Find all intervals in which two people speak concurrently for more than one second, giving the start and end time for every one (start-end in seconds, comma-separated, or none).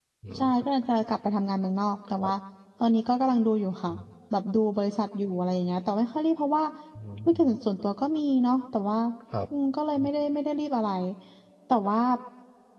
none